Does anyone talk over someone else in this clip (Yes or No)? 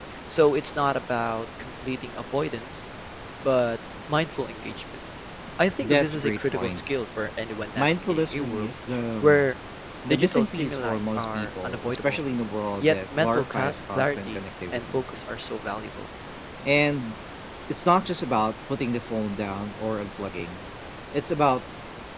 Yes